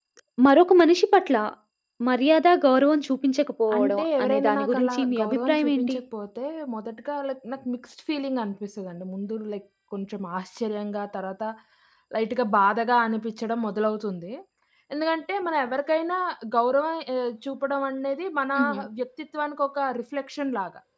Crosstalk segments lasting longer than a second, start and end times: 3.8-6.0

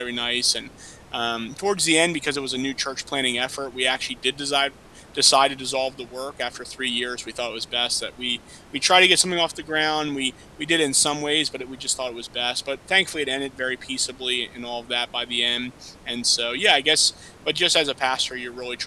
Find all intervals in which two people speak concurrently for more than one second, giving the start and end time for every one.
none

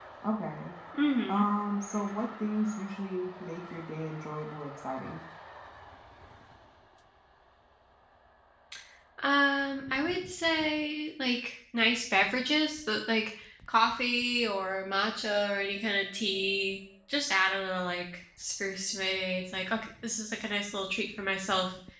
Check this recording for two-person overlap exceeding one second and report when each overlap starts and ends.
none

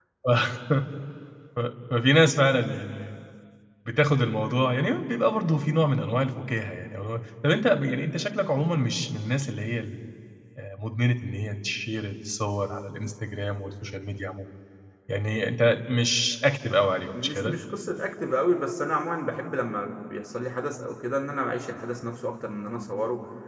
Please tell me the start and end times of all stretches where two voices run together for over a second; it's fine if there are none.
none

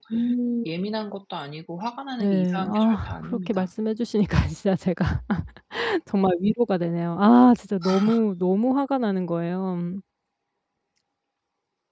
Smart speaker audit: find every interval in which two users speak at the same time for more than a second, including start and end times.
2.2-3.7

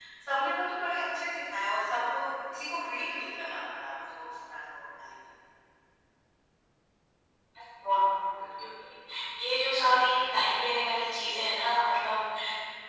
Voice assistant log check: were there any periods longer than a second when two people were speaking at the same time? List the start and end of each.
none

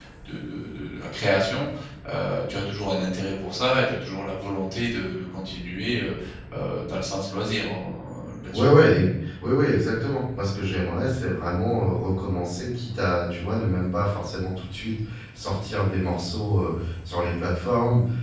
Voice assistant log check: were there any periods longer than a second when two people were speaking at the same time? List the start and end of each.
none

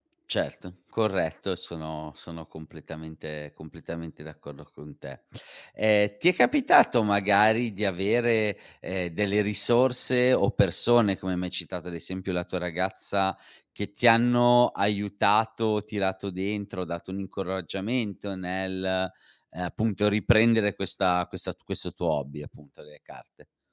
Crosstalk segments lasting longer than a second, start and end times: none

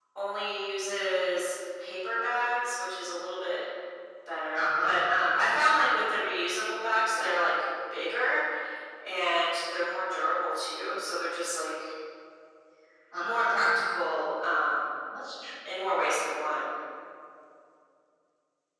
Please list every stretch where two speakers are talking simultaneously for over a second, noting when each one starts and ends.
none

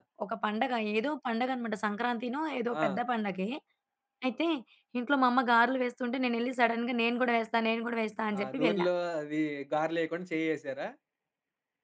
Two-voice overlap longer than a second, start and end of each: none

